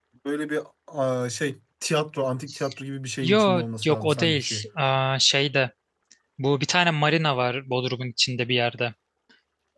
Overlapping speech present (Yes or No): Yes